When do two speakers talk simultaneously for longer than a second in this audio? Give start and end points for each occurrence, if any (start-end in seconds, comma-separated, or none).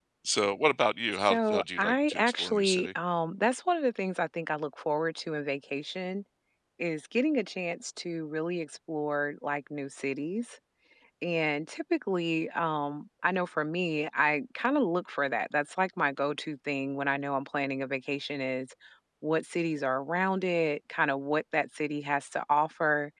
1.1-2.9